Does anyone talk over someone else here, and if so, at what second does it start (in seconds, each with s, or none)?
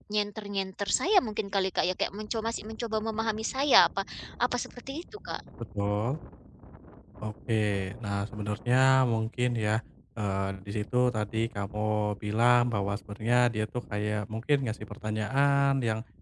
none